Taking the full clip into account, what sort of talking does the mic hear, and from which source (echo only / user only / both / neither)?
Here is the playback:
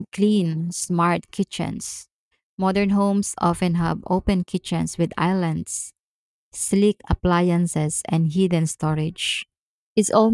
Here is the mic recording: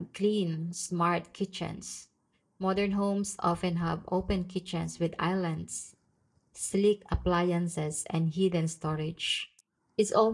echo only